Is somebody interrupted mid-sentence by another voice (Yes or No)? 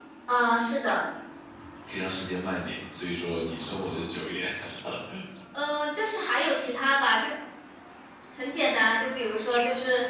No